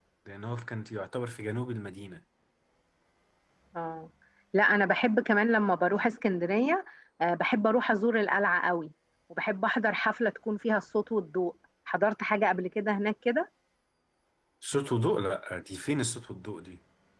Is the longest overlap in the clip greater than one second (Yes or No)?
No